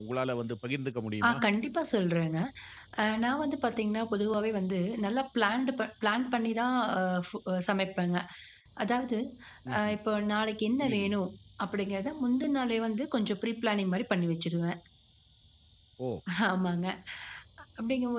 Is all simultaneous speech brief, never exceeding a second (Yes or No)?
Yes